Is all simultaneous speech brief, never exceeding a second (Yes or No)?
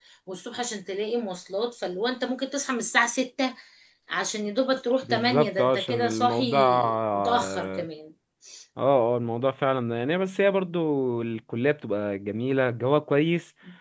No